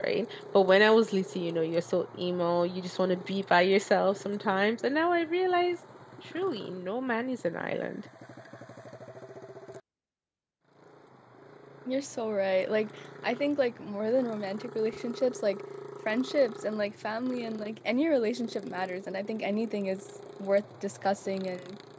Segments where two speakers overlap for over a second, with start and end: none

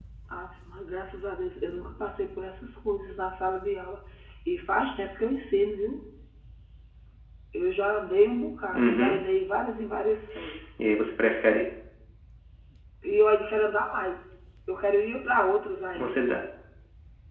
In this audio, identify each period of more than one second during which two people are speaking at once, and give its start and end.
none

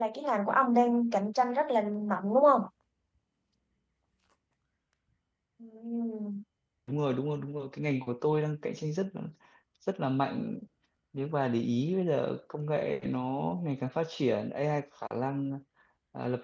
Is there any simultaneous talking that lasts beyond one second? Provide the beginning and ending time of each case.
none

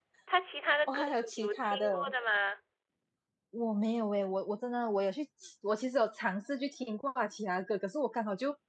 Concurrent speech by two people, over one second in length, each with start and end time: 0.9-2.1

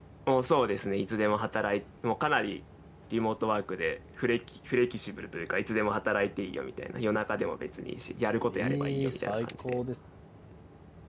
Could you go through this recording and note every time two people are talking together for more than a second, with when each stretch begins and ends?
8.5-9.8

